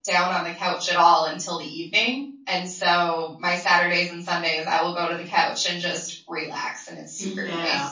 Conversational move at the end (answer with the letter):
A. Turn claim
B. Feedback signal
A